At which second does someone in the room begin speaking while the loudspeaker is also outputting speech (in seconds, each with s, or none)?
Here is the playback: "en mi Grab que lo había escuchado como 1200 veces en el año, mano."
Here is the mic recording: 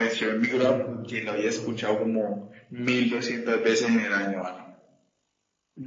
0.5 s